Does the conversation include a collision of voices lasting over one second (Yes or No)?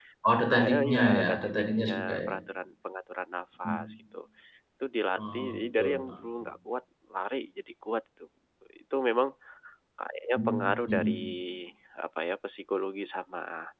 Yes